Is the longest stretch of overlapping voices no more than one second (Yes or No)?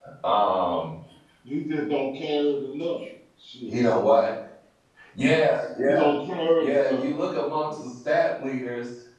Yes